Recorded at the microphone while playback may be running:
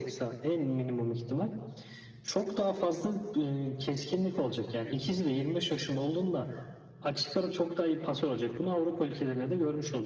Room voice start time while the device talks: none

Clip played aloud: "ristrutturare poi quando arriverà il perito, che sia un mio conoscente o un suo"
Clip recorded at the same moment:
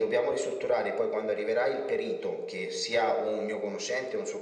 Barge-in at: none

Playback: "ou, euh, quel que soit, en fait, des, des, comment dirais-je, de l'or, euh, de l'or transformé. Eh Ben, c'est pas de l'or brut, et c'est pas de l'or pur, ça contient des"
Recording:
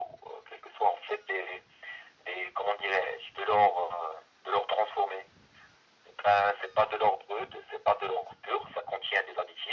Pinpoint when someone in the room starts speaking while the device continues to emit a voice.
none

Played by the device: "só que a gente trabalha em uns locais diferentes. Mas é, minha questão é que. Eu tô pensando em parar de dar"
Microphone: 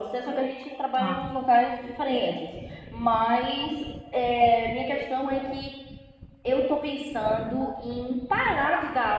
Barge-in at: 0.9 s

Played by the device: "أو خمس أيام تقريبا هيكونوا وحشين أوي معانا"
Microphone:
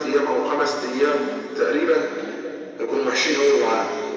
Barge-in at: none

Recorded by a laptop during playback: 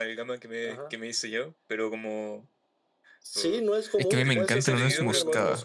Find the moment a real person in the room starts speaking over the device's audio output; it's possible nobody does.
4.0 s

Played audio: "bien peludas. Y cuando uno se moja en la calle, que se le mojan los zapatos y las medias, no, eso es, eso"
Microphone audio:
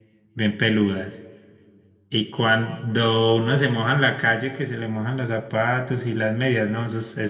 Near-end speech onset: none

